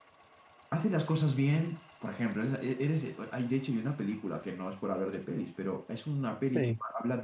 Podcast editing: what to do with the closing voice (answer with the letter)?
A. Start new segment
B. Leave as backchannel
B